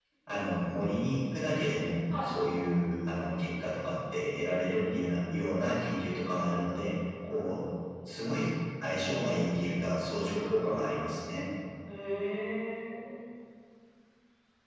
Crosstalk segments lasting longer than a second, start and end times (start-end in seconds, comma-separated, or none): none